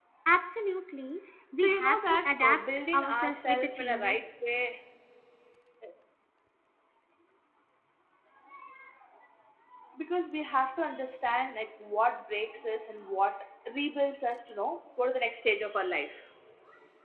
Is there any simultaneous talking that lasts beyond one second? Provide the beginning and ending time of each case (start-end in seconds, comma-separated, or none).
1.5-4.2